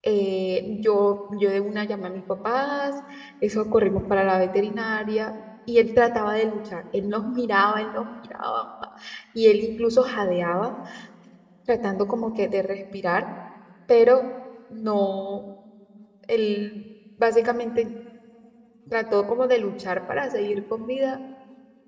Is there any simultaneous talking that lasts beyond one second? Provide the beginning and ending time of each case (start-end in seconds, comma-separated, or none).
none